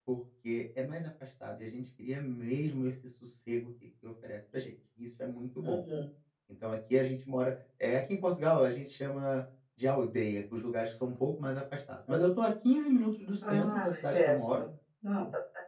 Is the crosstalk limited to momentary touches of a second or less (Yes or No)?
No